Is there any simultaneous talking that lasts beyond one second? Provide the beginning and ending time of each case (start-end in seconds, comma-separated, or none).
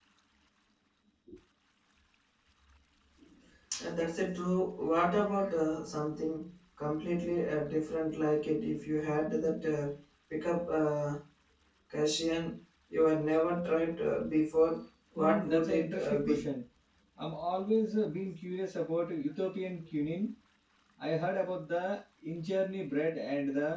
15.2-16.5